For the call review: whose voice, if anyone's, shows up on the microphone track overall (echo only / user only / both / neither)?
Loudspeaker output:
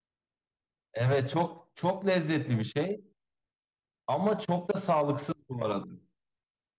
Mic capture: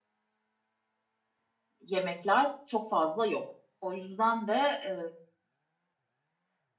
user only